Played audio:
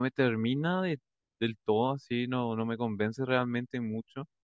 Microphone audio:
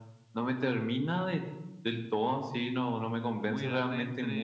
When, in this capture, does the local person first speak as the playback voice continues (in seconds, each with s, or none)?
3.4 s